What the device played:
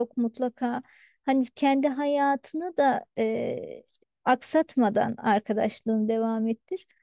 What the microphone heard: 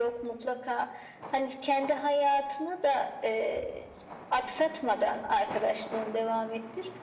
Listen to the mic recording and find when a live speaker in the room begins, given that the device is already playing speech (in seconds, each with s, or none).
none